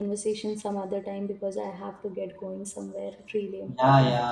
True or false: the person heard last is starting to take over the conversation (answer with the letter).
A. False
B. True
B